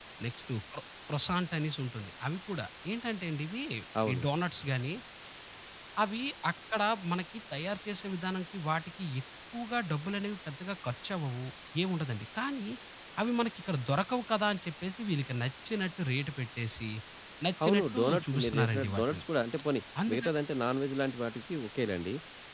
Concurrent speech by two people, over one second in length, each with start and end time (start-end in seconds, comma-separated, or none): 17.6-19.2